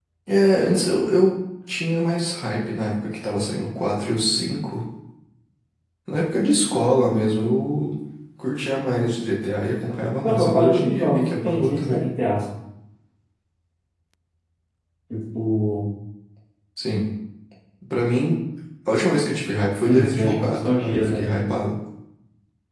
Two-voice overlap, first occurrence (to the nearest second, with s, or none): 10 s